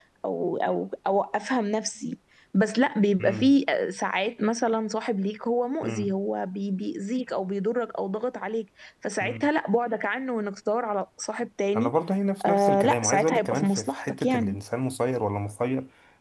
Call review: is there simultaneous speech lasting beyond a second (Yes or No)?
Yes